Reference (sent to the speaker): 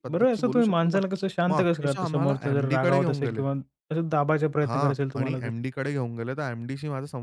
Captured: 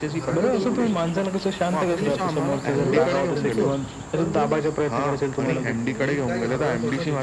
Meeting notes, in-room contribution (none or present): present